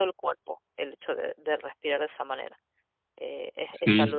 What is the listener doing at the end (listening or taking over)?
taking over